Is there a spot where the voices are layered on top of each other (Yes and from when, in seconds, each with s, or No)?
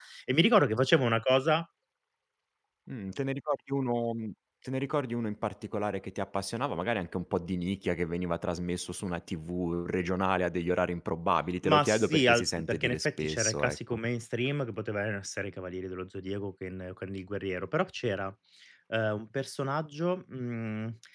Yes, from 11.6 s